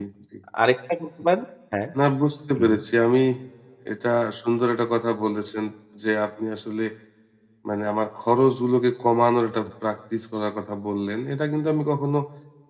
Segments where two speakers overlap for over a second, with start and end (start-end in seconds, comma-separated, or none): none